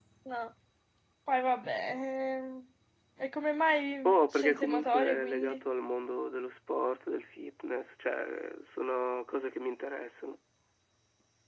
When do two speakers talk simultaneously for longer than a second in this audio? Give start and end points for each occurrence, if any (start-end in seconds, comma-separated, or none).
4.0-5.6